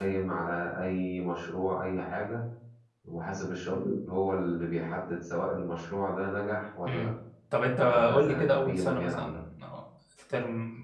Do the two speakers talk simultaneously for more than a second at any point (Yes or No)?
Yes